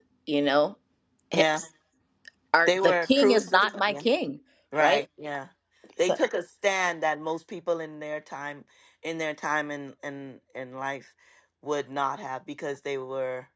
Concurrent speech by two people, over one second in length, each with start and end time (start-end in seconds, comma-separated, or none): 2.7-4.0